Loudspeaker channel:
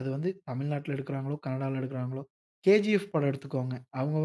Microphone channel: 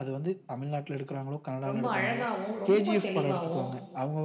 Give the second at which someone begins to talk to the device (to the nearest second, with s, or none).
2 s